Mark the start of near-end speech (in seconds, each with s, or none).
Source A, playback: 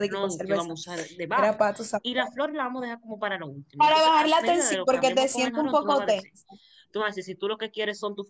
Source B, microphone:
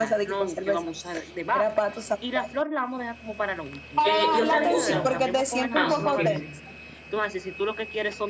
4.0 s